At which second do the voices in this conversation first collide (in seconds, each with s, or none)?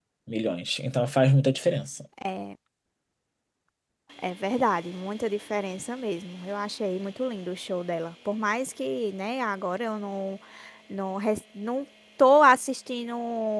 none